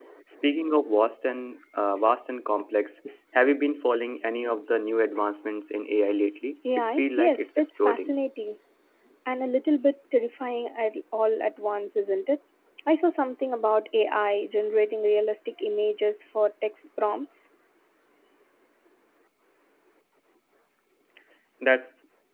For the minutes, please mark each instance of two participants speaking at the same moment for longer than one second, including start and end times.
6.8-8.1

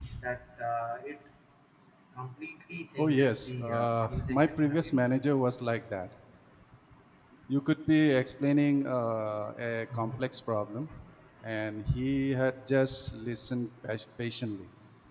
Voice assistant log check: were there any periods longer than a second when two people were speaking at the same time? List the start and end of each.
3.0-5.0

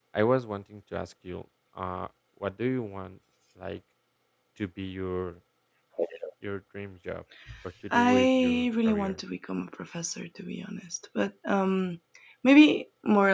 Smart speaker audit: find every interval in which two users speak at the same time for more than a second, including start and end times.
7.9-9.2

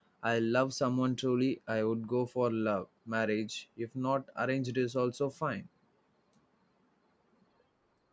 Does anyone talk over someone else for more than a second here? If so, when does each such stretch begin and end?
none

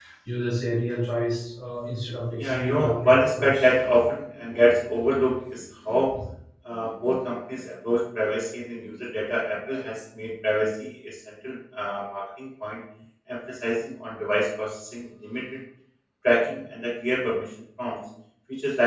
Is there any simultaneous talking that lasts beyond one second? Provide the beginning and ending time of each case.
2.4-3.6

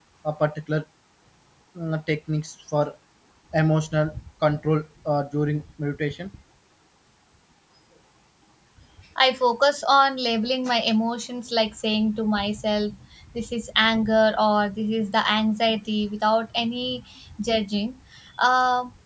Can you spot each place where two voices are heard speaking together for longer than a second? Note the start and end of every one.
none

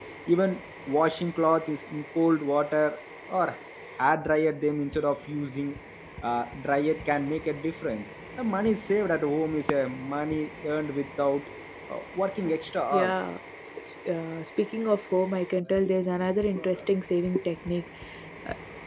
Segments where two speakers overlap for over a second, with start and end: none

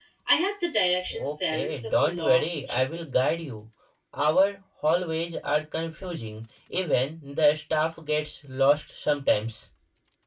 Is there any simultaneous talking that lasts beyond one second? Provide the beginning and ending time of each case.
1.1-2.8

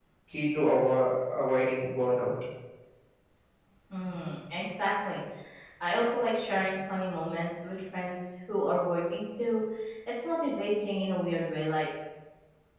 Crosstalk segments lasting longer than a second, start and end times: none

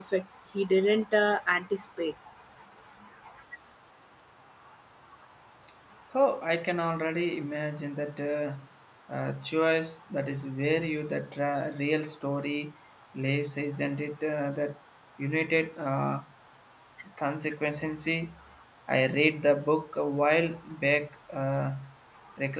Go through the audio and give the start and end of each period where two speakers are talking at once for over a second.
none

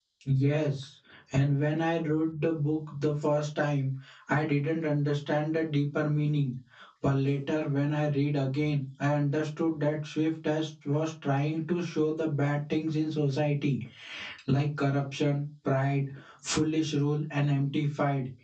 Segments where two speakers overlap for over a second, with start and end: none

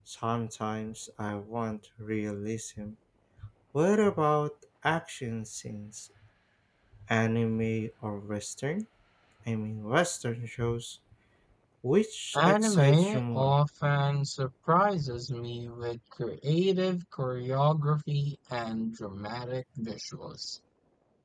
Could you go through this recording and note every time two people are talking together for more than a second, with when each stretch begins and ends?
12.3-13.6

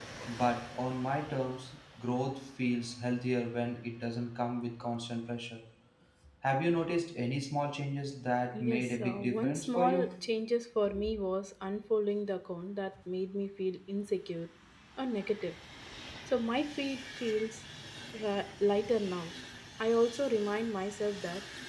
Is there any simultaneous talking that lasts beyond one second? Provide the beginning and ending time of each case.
8.6-10.1

